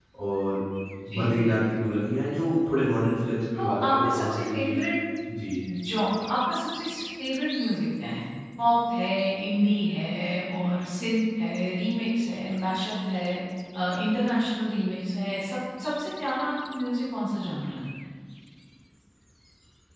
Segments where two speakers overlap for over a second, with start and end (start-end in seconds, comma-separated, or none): 3.6-4.8